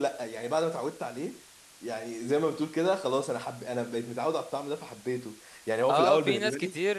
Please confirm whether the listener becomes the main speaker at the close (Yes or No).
Yes